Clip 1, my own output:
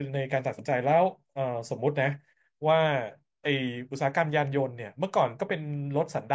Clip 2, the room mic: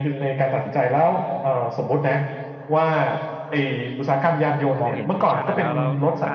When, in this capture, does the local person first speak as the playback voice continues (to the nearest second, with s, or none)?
5 s